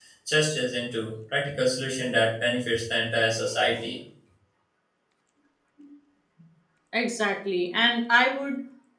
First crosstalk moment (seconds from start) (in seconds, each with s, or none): none